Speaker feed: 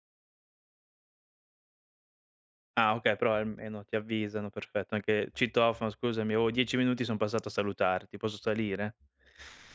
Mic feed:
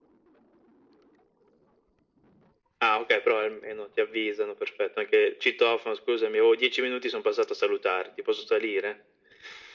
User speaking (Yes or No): No